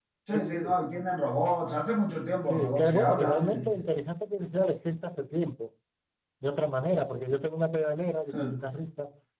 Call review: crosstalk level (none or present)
present